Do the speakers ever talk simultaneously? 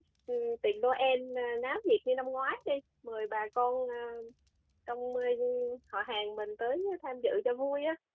No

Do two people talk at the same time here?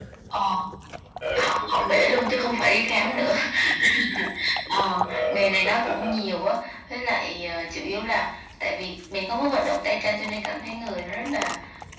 Yes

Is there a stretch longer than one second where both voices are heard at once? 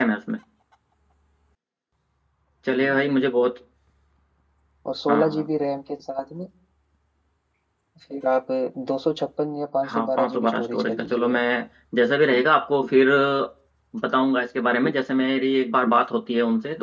Yes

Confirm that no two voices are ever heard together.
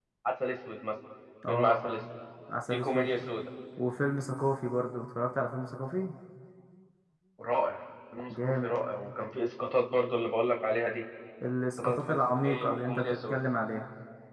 No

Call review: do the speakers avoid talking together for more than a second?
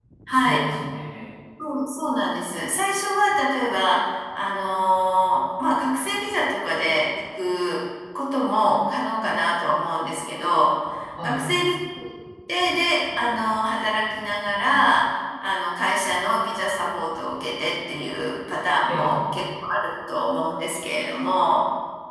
Yes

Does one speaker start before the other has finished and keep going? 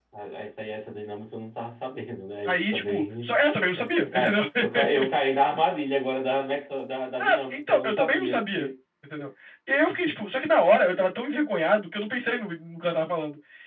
Yes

